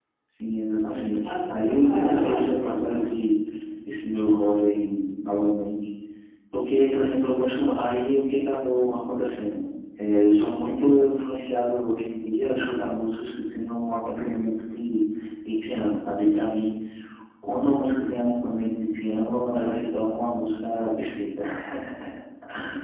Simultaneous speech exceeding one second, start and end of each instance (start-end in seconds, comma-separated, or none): 0.9-3.1